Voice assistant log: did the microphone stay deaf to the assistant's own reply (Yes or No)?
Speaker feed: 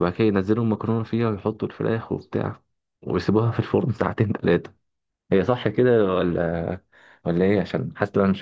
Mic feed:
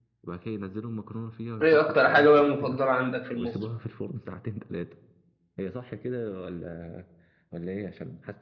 No